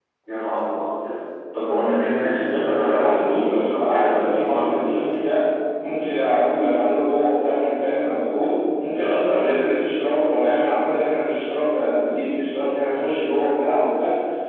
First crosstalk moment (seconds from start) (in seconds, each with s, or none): 2.7 s